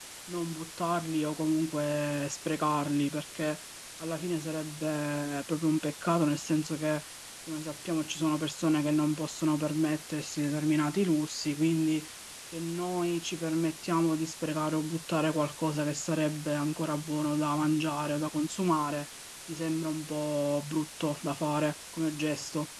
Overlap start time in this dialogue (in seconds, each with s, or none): none